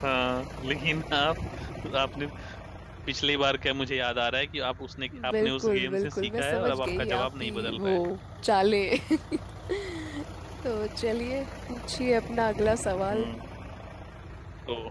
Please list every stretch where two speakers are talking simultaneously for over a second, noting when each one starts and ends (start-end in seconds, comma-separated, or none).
5.3-7.9